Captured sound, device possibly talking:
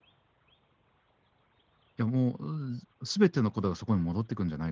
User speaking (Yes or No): Yes